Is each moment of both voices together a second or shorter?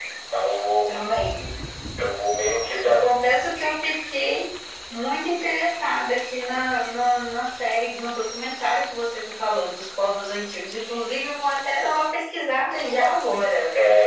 Yes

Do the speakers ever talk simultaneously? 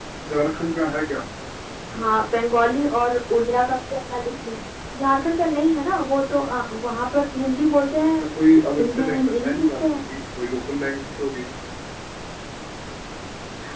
Yes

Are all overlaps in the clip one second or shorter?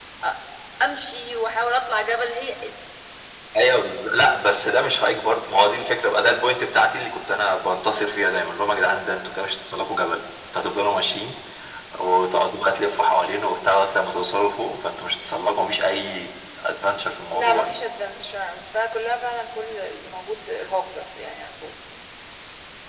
Yes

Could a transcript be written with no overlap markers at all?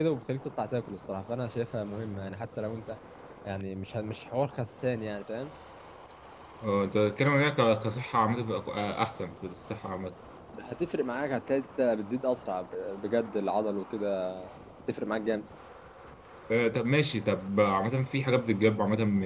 Yes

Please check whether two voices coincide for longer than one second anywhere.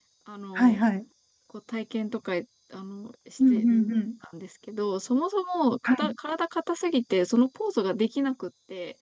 No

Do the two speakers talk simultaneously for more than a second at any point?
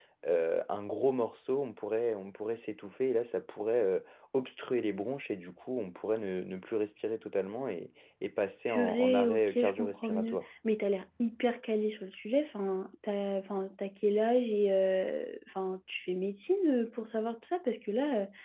Yes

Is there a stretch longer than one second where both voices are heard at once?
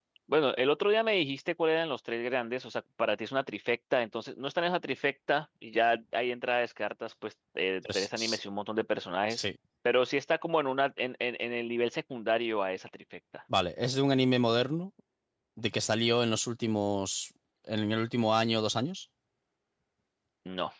No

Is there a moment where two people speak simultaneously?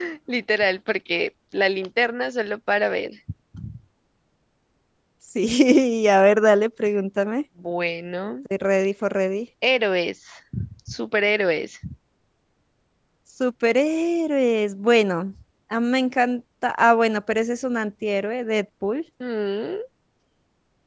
No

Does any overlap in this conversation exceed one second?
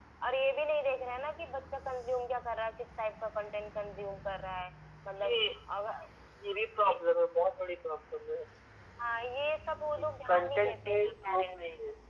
Yes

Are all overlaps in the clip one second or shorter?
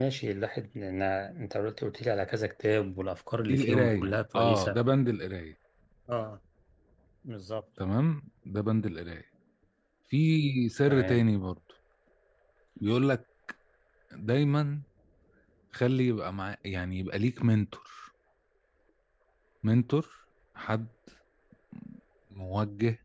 No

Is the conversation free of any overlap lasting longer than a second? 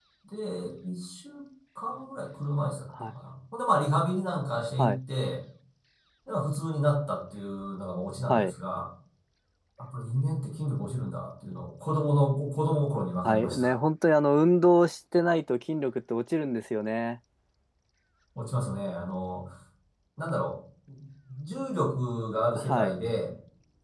Yes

